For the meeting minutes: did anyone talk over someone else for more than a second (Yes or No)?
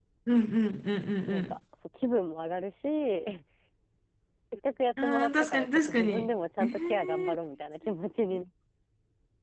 Yes